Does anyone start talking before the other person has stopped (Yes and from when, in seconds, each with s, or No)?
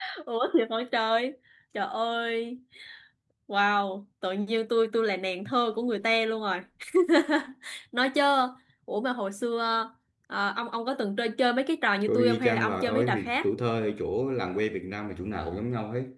Yes, from 12.1 s